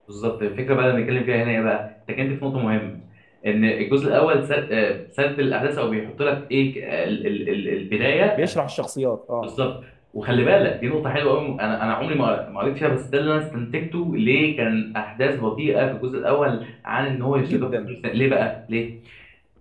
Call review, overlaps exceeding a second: none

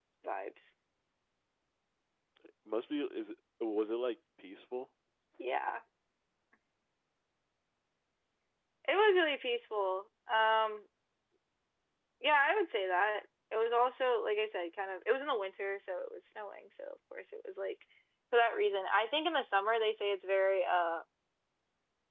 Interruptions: none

